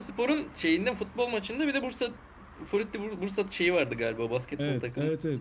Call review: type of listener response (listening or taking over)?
taking over